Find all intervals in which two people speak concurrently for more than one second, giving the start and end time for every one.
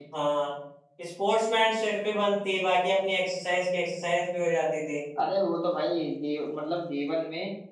none

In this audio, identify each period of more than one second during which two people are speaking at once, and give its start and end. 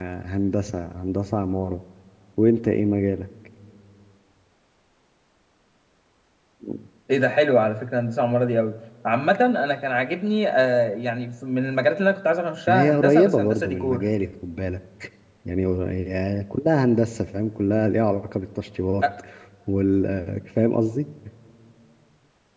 12.7-14.0

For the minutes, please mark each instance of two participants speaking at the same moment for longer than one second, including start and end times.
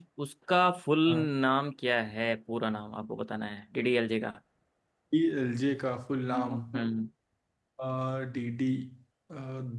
none

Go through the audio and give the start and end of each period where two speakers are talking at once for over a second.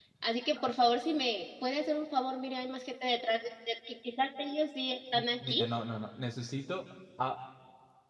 none

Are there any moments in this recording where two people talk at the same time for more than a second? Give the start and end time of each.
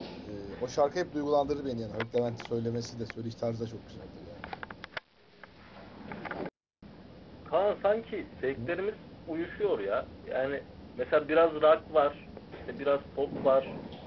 none

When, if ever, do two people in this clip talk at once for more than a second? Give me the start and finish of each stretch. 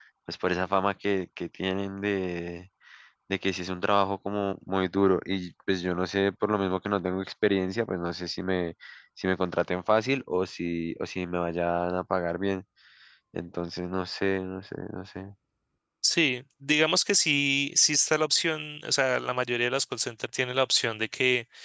none

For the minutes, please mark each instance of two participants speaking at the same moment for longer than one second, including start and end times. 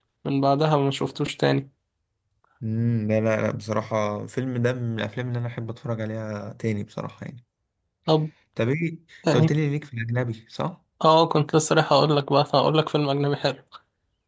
none

